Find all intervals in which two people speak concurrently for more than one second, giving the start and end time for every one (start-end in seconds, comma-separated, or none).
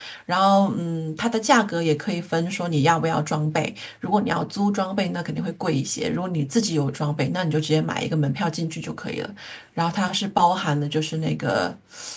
none